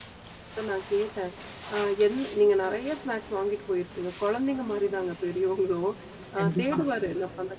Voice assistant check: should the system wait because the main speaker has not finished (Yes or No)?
Yes